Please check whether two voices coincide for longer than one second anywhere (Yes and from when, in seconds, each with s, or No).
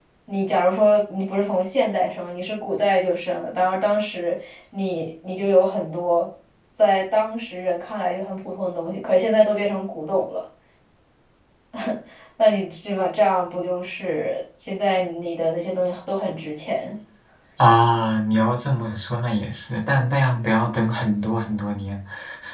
No